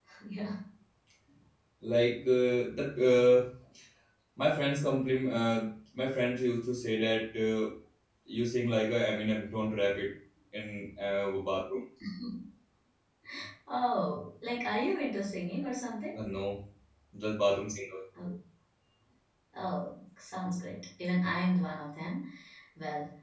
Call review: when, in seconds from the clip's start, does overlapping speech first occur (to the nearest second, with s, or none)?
none